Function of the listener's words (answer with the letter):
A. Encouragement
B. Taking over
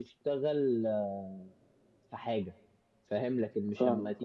A